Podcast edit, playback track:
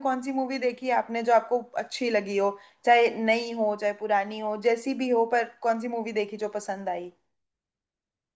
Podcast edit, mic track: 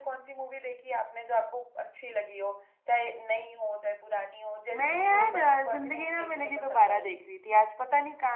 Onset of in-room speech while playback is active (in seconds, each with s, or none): 4.7 s